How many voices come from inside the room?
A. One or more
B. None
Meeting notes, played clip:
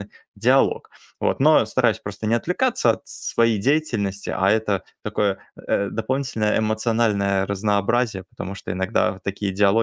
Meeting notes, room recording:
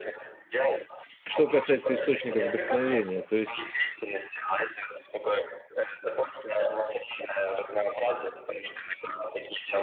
A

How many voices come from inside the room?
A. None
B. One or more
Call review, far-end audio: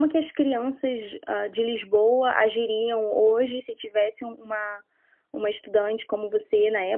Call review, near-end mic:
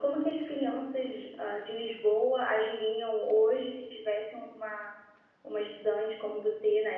A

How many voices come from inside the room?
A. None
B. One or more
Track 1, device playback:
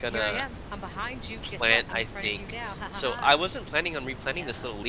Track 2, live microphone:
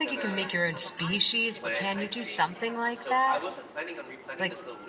B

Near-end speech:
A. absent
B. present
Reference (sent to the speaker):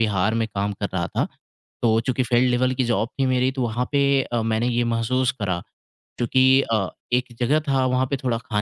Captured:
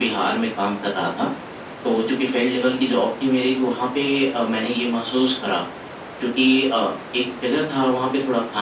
A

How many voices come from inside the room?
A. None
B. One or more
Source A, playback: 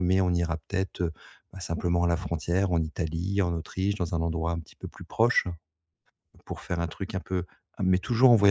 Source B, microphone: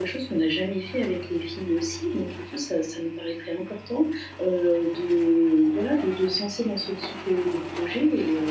B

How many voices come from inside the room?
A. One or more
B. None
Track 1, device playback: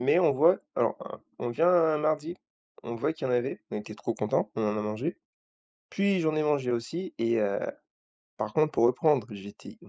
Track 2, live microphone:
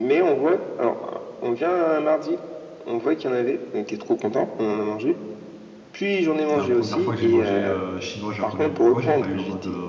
A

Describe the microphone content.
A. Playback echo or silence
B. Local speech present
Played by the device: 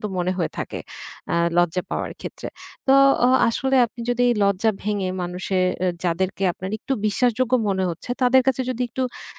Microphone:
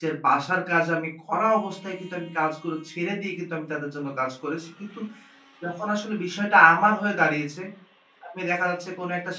B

